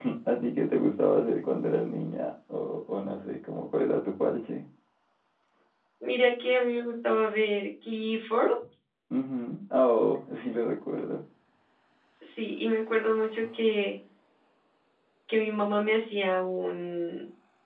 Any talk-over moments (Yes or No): No